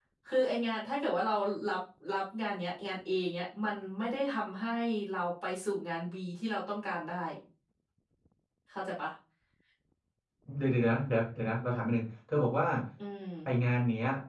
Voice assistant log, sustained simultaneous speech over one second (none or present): none